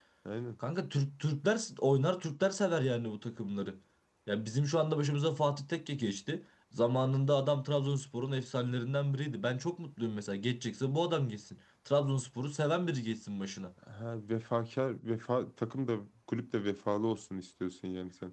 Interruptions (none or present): none